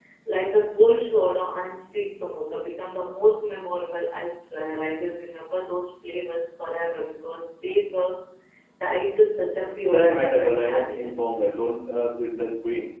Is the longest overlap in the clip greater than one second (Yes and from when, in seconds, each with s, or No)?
Yes, from 9.9 s